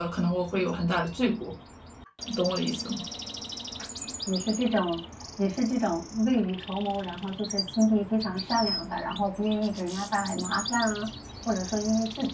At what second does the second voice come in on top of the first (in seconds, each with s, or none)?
none